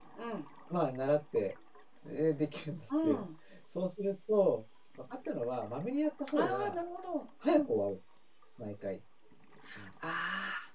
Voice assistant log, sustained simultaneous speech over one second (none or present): none